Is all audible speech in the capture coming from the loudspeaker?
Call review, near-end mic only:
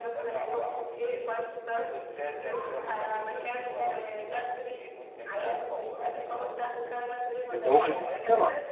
No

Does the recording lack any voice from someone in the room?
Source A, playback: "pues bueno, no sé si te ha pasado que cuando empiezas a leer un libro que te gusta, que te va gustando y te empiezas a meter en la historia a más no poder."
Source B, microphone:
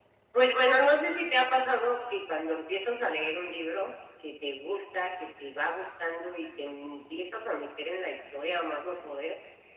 Yes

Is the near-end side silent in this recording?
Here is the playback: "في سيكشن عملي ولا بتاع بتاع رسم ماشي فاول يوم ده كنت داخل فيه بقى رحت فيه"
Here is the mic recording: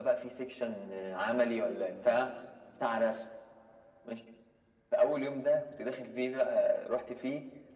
Yes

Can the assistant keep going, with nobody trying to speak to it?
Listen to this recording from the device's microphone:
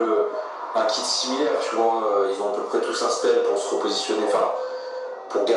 Yes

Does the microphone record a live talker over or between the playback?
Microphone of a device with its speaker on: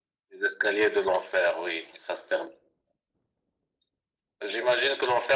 No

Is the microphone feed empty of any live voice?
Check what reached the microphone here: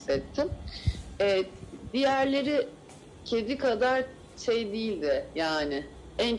Yes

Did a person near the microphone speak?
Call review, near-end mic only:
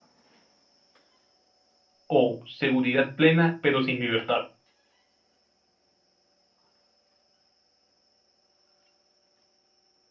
Yes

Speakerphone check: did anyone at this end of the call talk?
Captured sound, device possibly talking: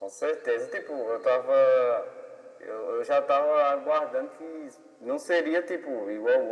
No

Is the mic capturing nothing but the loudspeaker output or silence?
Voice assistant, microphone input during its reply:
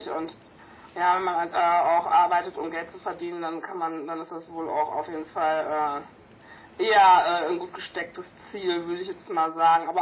Yes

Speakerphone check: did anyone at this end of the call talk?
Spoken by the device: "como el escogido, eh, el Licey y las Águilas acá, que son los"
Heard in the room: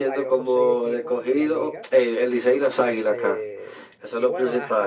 Yes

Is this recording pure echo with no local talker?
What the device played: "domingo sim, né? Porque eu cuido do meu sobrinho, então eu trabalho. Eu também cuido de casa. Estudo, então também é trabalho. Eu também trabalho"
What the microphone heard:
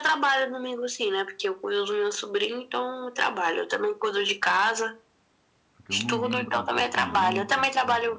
No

